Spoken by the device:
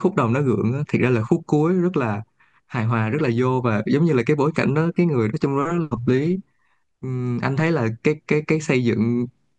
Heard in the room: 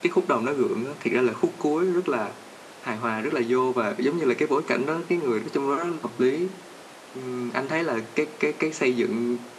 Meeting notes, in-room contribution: none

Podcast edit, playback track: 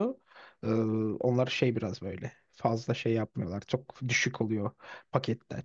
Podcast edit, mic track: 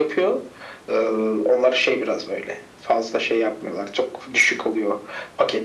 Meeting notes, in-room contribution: none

